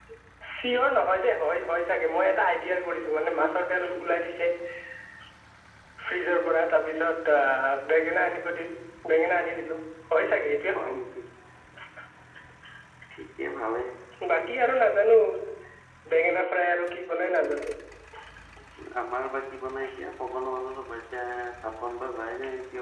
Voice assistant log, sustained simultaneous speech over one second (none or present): none